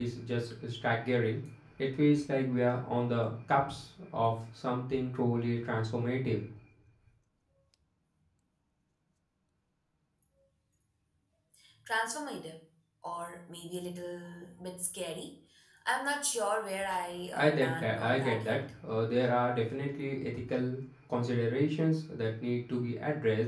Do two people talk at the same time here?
Yes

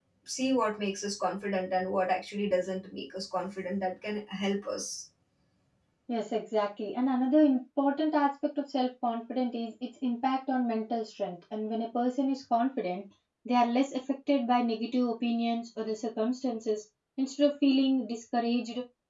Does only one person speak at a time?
Yes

